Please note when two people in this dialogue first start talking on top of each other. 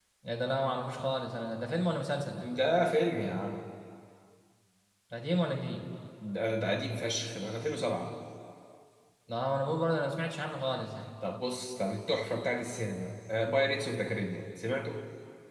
none

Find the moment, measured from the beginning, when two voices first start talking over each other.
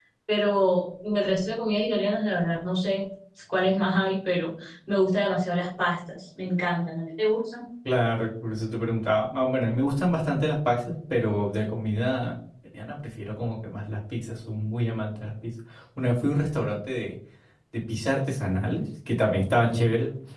none

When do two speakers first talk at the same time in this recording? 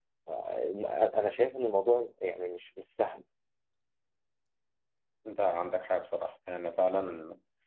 none

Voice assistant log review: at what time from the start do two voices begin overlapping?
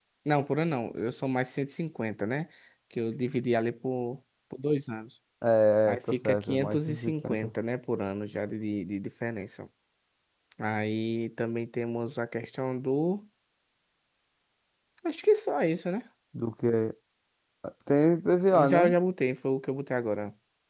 5.9 s

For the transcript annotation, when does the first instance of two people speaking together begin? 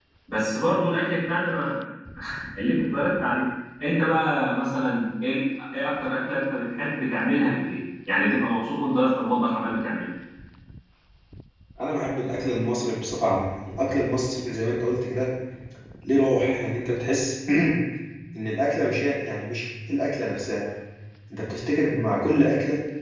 none

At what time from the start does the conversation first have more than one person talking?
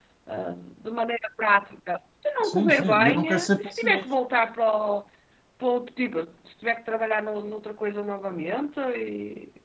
2.4 s

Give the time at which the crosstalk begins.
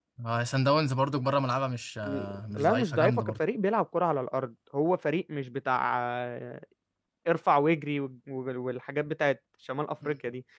2.0 s

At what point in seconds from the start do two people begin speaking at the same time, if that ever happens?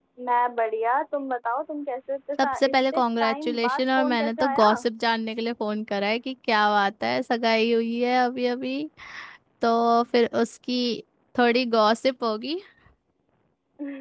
2.4 s

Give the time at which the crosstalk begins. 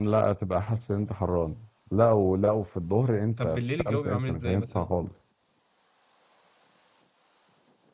3.4 s

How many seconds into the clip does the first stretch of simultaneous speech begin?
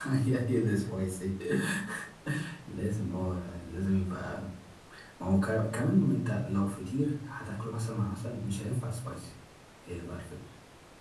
none

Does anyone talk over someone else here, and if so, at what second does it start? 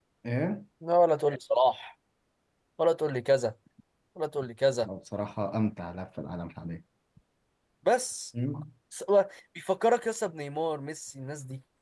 none

